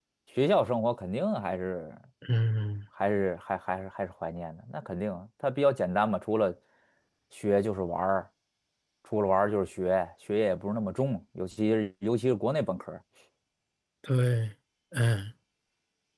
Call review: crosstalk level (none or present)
none